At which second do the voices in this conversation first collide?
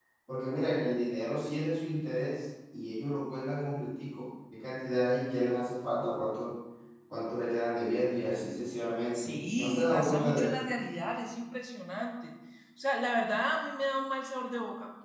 9 s

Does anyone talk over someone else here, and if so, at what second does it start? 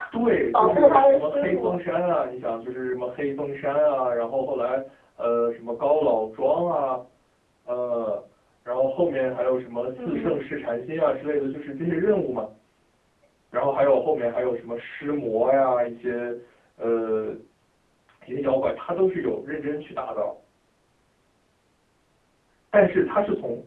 1 s

